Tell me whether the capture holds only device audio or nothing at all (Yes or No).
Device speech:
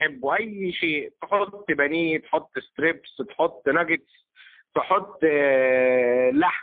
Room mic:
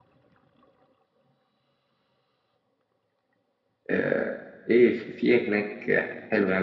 No